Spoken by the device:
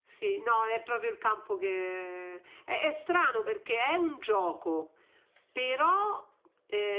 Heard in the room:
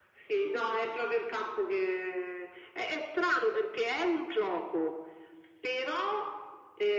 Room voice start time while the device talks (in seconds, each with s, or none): none